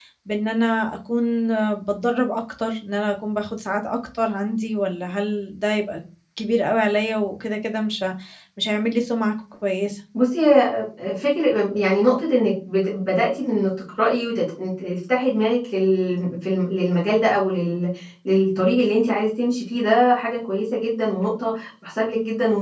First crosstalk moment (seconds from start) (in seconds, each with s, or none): none